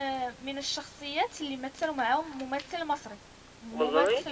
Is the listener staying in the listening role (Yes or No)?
Yes